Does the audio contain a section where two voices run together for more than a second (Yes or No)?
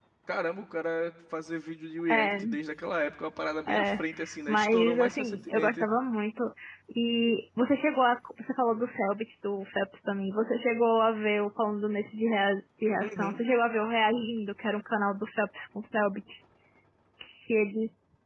Yes